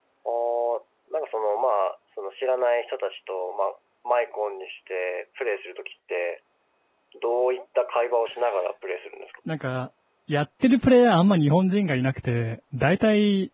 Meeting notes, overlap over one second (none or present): none